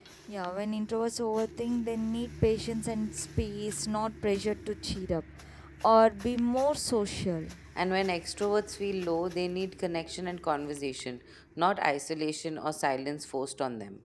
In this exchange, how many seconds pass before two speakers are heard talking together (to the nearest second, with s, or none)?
none